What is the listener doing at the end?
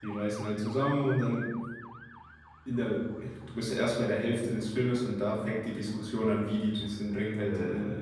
listening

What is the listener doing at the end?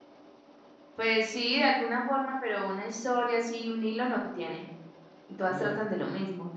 listening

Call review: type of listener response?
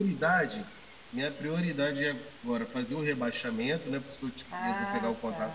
taking over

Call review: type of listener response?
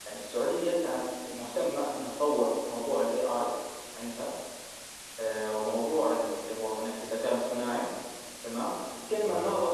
listening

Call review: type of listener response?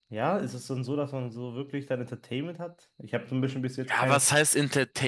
taking over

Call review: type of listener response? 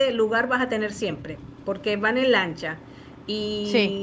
listening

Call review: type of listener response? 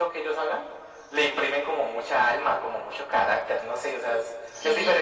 taking over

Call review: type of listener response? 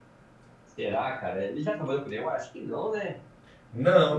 taking over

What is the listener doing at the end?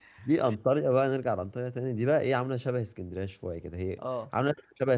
listening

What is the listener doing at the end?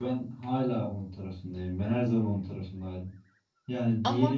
listening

